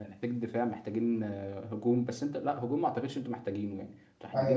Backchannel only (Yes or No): No